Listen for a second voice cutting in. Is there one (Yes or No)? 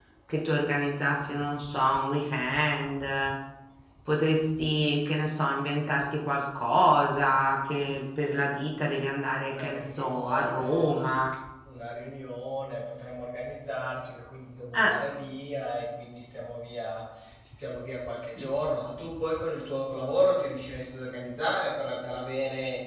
Yes